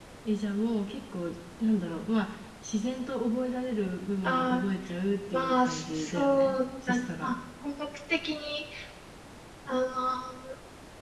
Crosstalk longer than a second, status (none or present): present